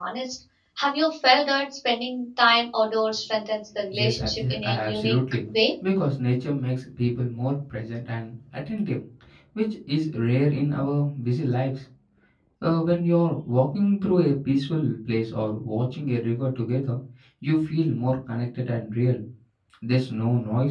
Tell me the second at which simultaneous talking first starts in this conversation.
3.9 s

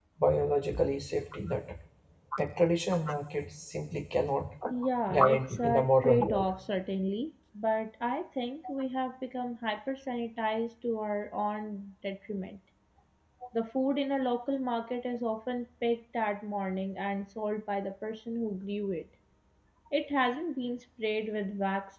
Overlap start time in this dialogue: 5.1 s

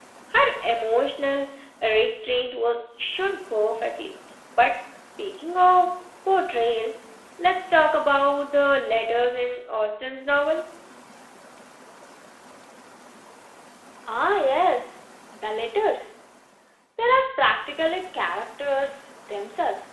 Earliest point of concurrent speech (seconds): none

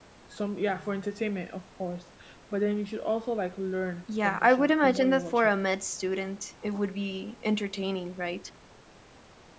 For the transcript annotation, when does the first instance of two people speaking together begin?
4.1 s

